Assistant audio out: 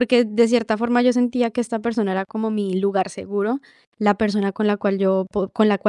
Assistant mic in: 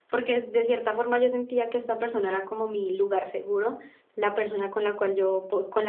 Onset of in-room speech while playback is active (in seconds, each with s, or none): none